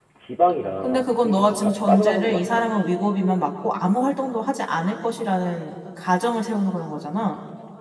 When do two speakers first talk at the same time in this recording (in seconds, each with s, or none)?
0.8 s